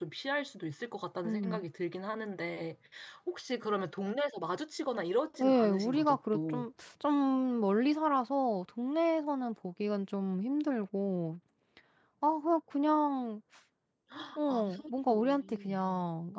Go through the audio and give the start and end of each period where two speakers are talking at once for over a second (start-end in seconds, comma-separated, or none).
5.4-6.7, 14.5-15.7